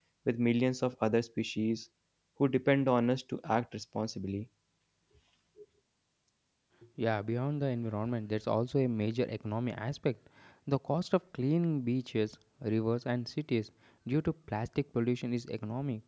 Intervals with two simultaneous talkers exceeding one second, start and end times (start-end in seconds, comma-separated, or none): none